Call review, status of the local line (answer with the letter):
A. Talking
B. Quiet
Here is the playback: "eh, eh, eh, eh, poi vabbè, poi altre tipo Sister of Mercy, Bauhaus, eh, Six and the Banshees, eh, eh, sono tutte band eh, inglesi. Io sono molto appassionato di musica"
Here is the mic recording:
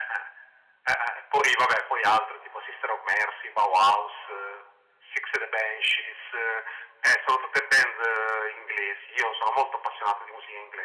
B